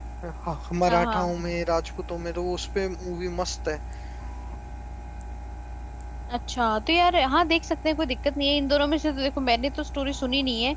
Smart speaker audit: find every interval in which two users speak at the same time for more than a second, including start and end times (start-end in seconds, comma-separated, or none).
none